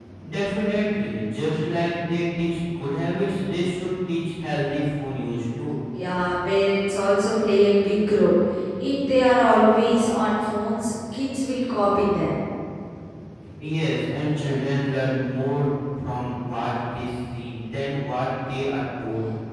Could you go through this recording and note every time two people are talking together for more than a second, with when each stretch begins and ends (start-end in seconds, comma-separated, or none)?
none